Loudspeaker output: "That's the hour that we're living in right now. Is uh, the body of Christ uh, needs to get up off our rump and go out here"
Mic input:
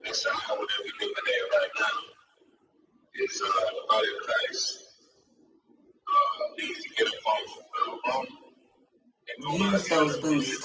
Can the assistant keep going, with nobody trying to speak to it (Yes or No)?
No